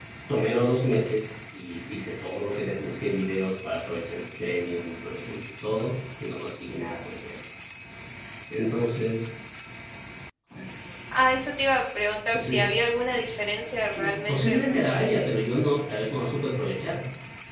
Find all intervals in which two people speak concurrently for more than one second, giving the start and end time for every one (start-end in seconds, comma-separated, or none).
14.0-15.3